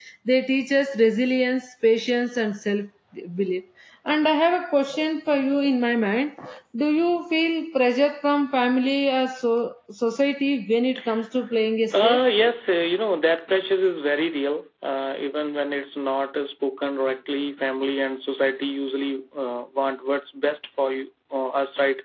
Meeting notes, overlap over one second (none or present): none